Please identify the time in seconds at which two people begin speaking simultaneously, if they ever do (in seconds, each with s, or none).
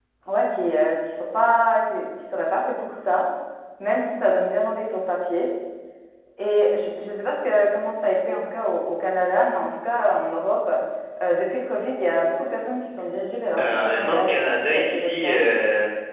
13.6 s